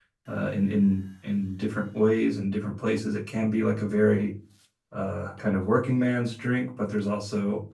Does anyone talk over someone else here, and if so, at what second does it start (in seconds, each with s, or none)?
none